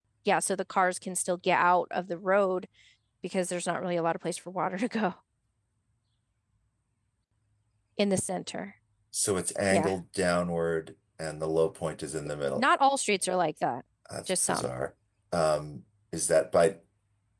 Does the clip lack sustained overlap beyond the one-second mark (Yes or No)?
Yes